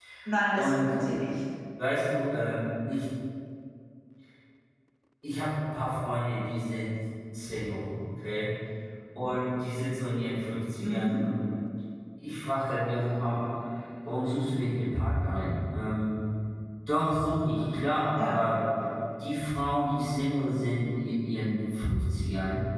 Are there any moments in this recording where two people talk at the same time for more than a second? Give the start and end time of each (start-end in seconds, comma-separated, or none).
none